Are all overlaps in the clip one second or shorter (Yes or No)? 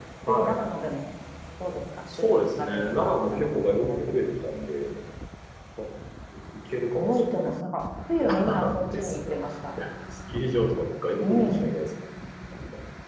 No